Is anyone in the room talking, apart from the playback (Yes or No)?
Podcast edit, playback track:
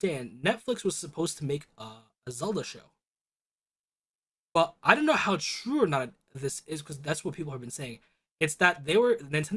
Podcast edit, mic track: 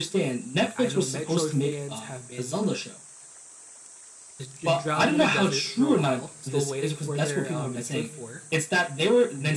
Yes